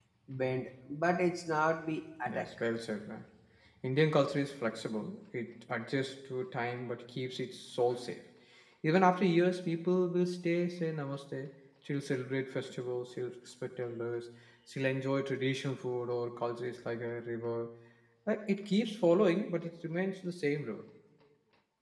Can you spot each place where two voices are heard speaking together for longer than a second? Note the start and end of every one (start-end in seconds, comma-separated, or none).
none